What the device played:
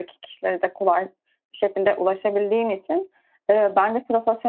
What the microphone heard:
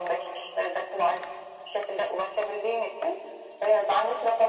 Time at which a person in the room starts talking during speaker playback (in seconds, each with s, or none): none